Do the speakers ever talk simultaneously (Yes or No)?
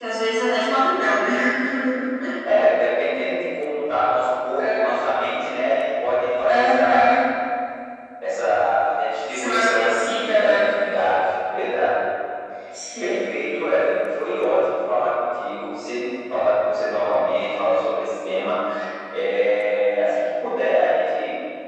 Yes